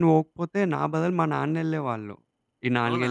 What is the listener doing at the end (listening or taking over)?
listening